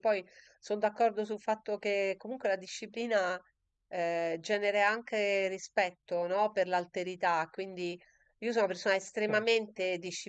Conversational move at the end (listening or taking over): listening